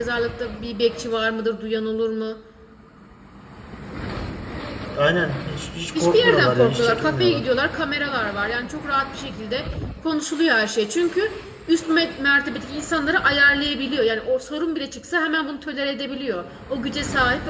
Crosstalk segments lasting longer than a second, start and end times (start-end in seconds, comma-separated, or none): 6.0-7.4